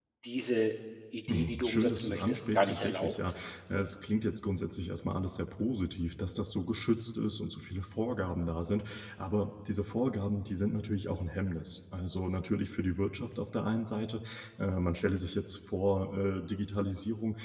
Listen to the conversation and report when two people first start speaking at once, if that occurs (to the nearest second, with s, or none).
1 s